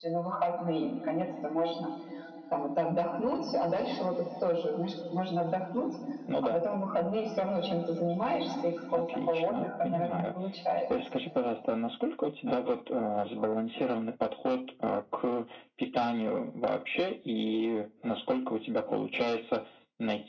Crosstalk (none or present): present